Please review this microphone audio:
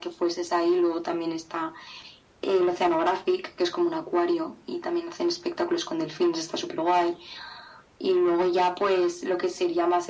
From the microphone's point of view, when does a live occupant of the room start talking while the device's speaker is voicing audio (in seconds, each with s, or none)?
none